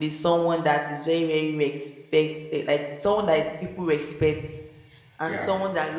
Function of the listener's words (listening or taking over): listening